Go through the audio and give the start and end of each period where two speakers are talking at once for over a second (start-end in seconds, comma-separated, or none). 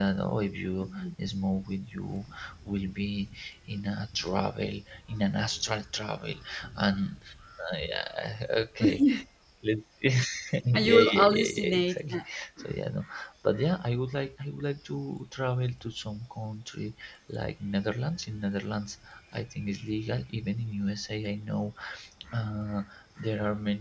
10.7-12.2